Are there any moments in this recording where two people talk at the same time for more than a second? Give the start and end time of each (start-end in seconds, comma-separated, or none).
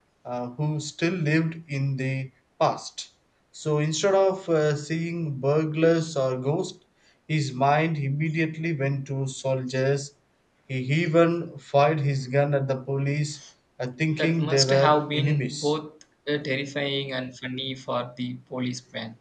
14.2-15.7